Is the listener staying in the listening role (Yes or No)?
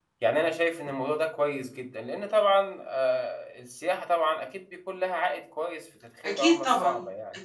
No